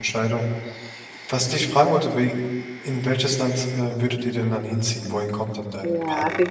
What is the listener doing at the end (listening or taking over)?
taking over